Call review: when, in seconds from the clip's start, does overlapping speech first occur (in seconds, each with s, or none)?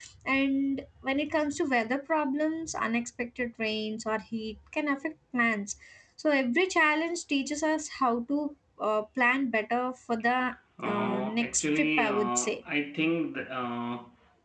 10.8 s